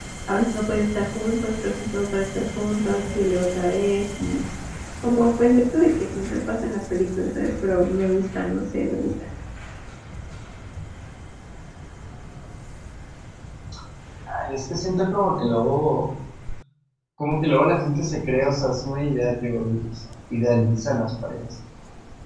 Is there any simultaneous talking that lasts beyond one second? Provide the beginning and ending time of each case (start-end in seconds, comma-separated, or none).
none